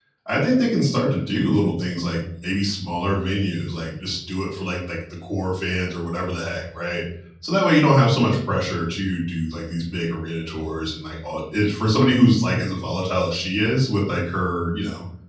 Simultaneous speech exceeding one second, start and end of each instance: none

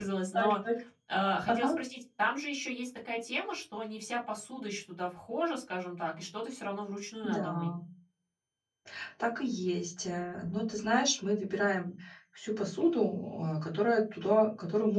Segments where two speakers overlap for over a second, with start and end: none

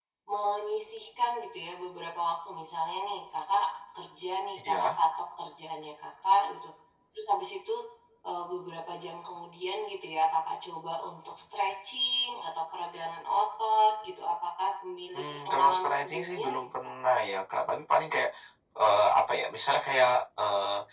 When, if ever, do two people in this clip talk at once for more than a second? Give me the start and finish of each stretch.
15.1-16.7

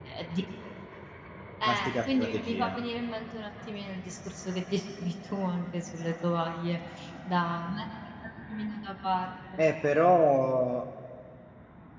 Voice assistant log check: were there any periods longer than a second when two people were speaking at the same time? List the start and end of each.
1.6-2.8

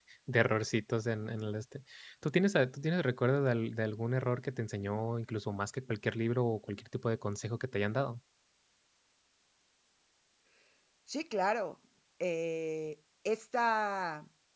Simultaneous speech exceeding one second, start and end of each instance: none

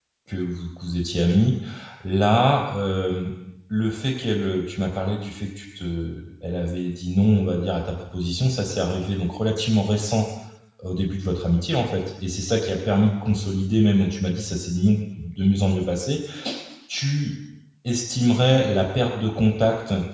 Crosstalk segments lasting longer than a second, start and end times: none

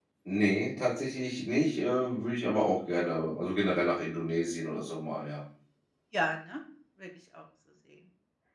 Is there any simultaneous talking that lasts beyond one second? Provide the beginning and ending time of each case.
none

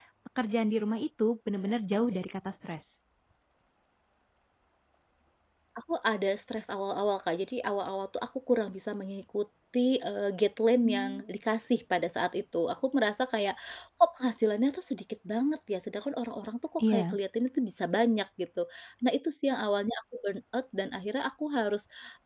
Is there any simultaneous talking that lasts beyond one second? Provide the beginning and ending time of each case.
none

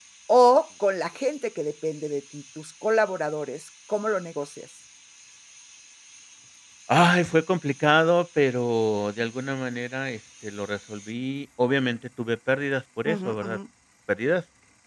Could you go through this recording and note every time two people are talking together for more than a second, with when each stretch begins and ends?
none

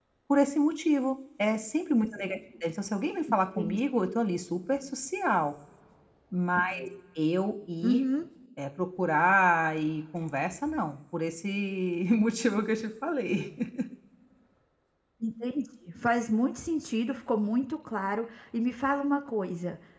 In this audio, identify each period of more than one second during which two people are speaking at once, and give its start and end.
none

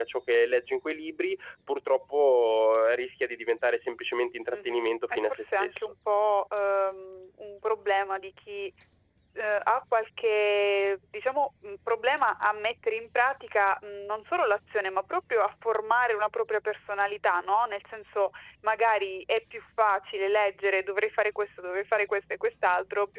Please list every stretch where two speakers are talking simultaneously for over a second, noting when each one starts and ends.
4.5-5.9

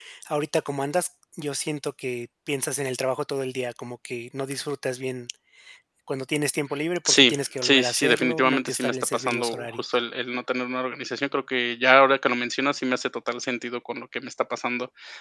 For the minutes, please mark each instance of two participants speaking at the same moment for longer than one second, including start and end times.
7.1-9.8

